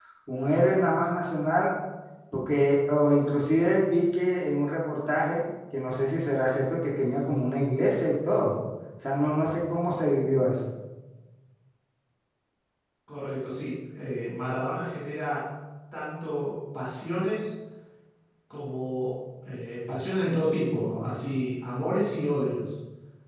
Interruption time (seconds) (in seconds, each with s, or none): none